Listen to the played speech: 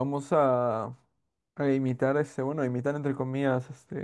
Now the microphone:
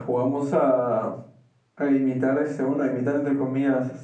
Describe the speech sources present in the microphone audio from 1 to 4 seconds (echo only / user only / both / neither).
echo only